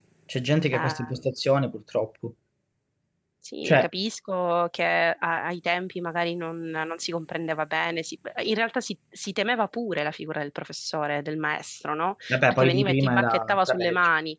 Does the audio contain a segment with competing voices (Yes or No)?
Yes